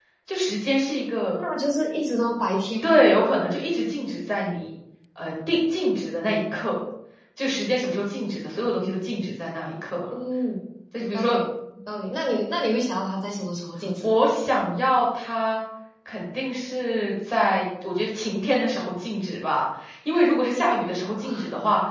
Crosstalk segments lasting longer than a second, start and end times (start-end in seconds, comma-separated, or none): none